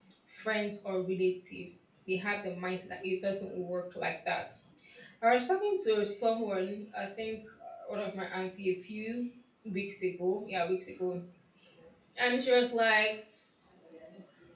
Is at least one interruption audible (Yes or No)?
No